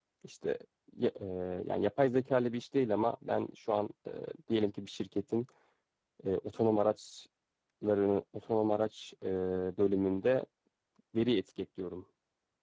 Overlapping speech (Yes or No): No